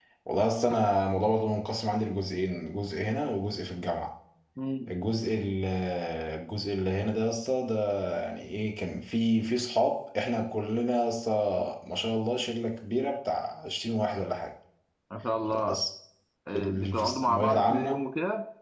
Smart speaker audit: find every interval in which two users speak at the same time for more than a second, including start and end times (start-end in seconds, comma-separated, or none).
16.6-18.0